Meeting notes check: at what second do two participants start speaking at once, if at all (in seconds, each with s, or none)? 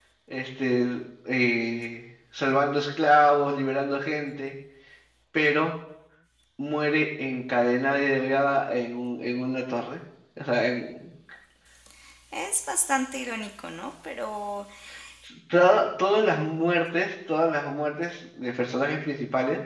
none